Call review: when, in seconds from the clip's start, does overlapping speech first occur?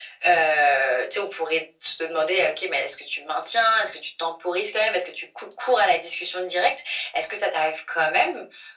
none

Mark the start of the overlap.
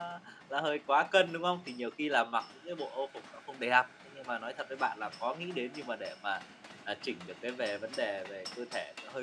none

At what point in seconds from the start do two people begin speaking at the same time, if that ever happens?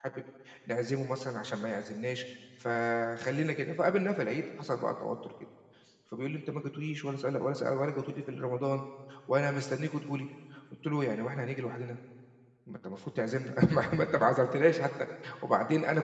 none

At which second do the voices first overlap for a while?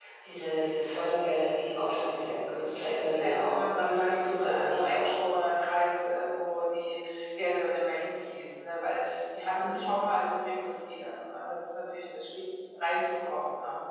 3 s

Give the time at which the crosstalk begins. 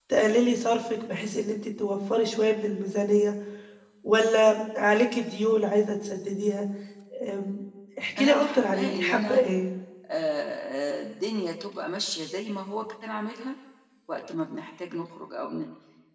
8 s

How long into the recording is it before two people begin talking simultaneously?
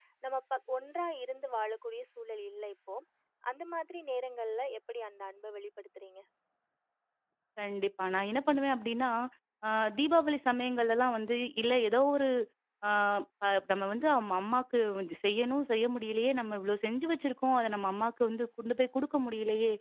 none

